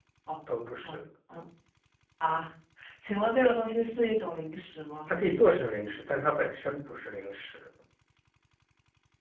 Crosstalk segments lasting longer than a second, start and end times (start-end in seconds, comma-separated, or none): none